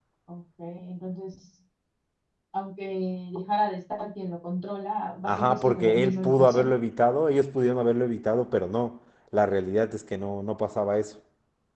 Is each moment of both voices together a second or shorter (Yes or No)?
No